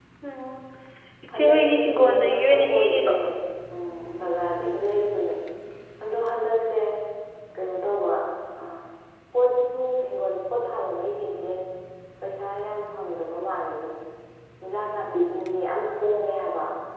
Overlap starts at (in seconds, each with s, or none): 1.4 s